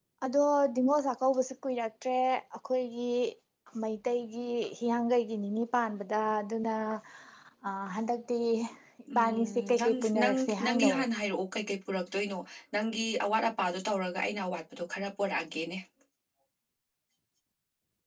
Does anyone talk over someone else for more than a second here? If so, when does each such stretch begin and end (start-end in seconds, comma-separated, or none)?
9.2-10.9